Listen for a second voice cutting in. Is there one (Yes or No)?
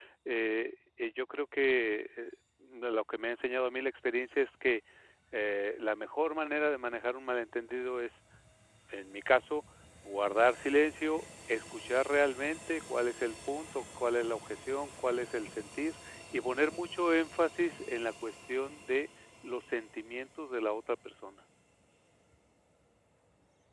No